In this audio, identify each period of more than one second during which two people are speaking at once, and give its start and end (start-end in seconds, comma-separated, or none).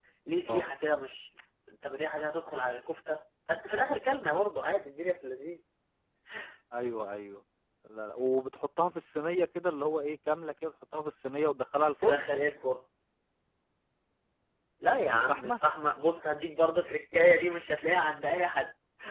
none